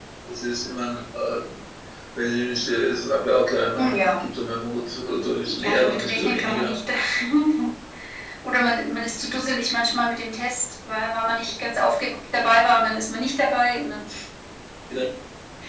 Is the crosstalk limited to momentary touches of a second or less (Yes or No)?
No